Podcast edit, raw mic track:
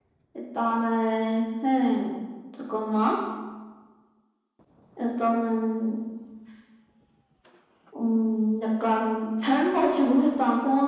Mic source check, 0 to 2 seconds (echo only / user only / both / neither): echo only